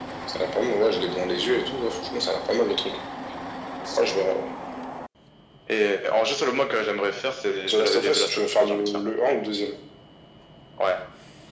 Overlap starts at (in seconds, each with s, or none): 7.7 s